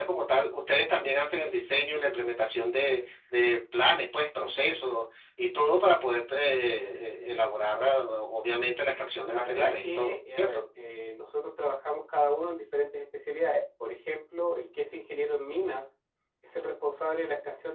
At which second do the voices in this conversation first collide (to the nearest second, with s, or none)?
9 s